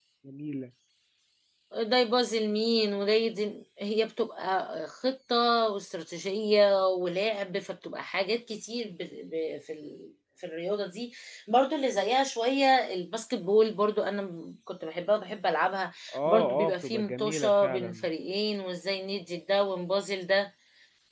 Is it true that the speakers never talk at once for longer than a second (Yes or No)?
No